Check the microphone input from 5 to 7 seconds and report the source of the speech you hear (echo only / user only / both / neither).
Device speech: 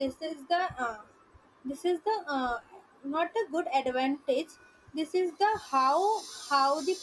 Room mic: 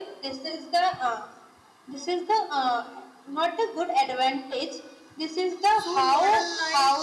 both